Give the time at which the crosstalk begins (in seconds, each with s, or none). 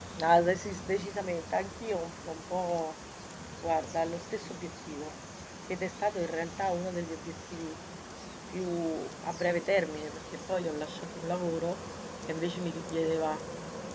none